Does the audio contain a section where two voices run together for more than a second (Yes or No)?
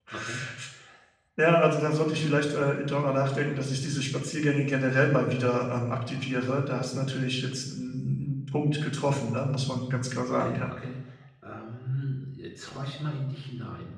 No